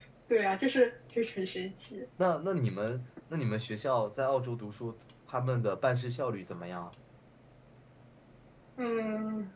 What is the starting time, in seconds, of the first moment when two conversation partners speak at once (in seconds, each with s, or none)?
none